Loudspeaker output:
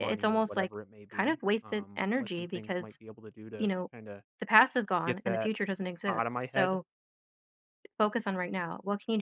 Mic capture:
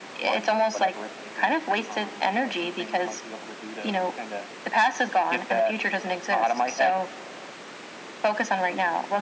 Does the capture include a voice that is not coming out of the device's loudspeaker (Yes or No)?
No